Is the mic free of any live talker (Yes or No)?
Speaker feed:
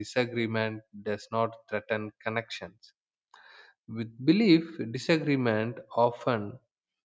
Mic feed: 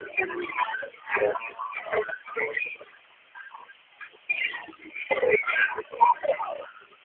Yes